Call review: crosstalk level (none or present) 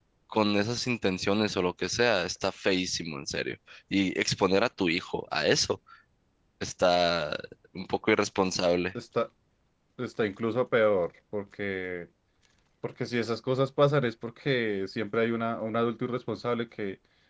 none